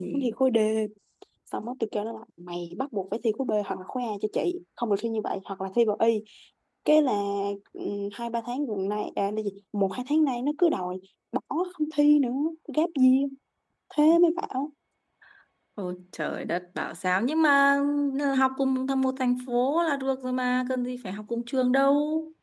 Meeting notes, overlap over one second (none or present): none